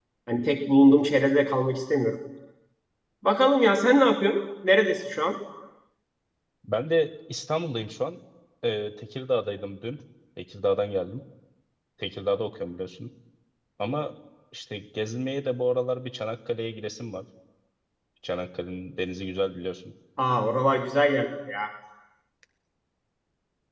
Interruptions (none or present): none